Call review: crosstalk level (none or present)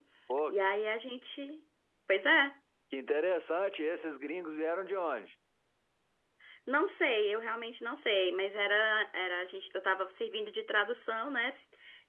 none